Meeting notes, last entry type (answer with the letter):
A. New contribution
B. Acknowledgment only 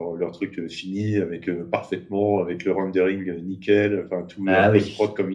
B